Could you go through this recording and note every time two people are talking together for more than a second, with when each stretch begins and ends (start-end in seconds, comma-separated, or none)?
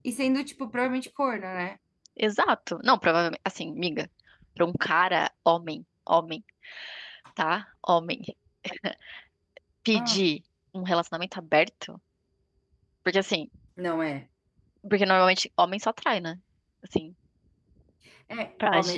none